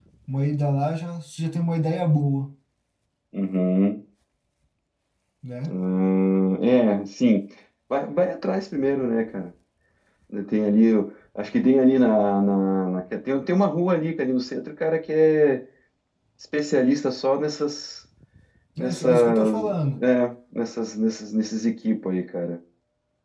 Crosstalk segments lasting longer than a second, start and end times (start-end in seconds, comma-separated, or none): 18.8-20.0